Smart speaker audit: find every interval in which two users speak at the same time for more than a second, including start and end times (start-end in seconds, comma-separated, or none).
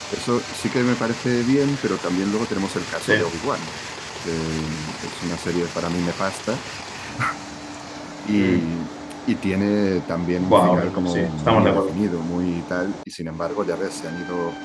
10.4-12.0